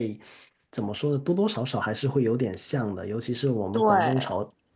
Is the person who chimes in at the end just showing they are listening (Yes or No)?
Yes